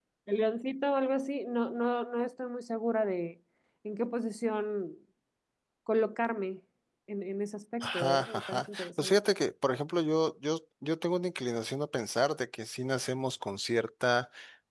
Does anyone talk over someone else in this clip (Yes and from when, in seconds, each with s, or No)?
Yes, from 7.8 s